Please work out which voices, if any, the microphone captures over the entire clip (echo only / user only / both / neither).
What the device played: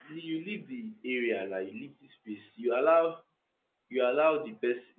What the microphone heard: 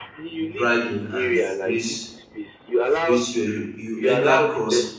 both